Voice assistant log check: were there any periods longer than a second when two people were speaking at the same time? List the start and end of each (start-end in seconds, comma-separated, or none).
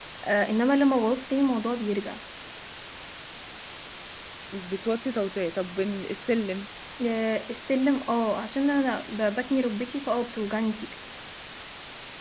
none